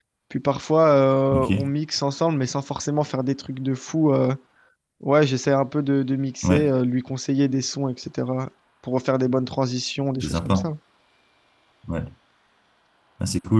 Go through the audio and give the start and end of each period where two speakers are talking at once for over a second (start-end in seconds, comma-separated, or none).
none